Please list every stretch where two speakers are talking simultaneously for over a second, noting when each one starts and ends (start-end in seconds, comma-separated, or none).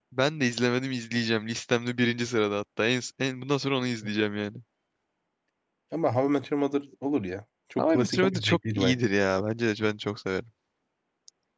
7.8-9.0